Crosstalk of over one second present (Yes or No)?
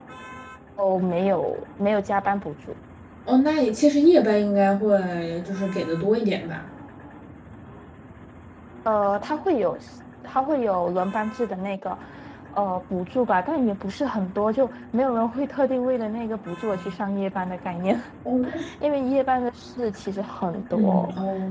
No